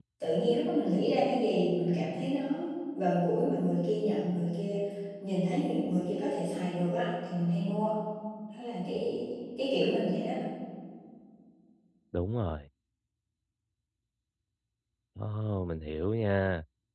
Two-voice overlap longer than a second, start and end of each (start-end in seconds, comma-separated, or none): none